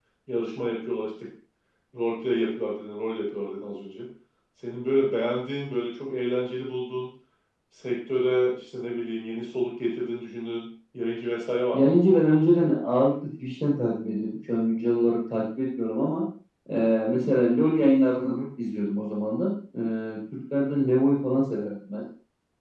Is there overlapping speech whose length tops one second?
No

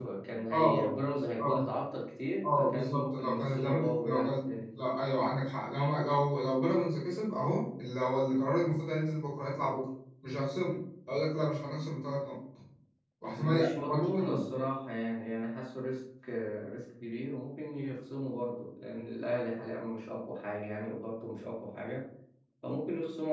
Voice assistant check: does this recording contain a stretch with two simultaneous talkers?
Yes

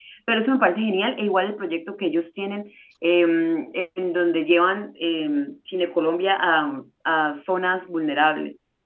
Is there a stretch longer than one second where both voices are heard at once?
No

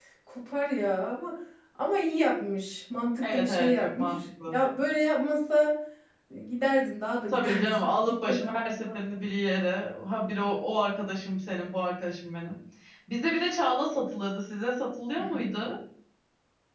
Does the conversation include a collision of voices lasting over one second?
Yes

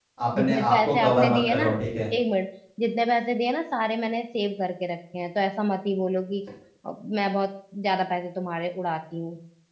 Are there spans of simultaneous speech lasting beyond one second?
Yes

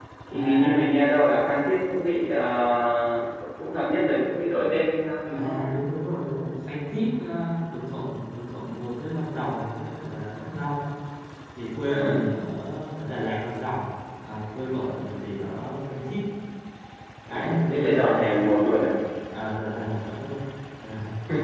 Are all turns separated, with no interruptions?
No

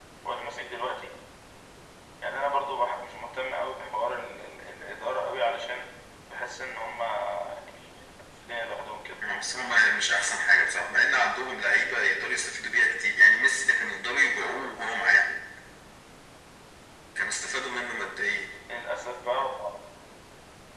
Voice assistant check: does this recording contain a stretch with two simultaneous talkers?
No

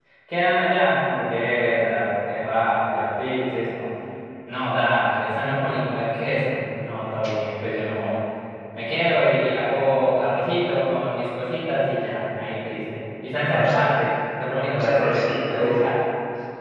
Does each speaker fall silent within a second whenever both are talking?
No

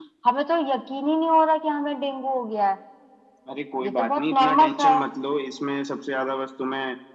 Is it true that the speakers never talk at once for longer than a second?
No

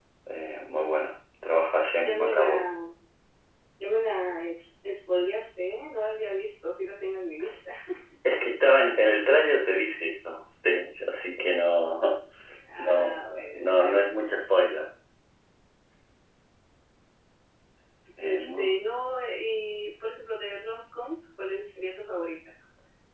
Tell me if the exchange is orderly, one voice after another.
No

